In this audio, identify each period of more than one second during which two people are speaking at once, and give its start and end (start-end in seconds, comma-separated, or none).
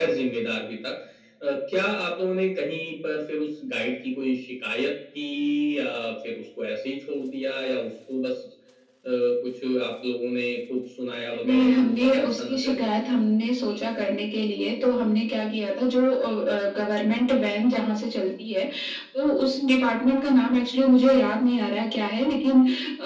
11.4-12.8